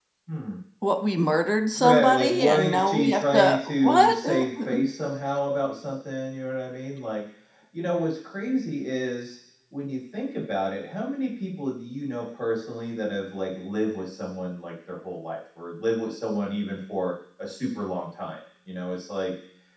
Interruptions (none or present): present